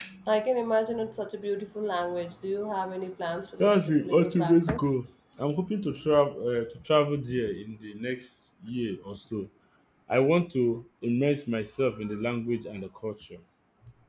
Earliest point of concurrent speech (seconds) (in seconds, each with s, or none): 3.6 s